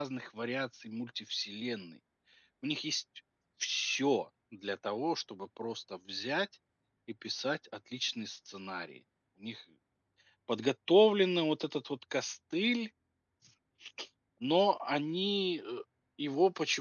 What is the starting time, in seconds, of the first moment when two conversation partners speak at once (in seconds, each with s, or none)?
none